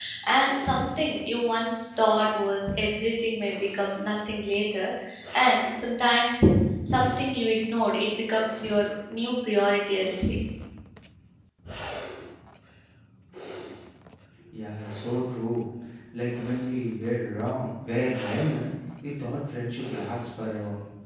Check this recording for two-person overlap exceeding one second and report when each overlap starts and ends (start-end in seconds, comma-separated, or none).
none